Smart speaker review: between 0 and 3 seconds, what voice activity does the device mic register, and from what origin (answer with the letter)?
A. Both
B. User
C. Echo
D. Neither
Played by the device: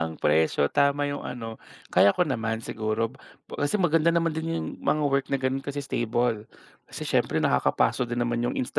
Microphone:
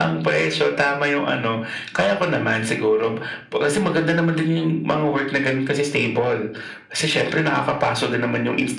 C